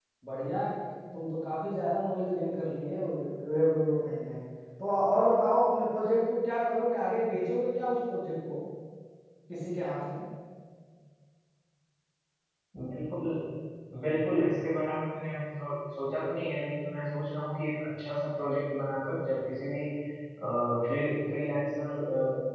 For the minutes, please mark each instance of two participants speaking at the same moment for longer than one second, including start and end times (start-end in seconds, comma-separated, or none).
none